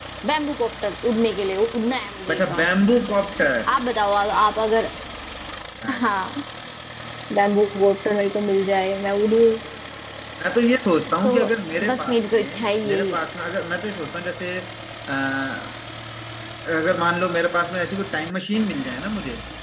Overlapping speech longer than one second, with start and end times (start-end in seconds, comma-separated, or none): 11.9-13.2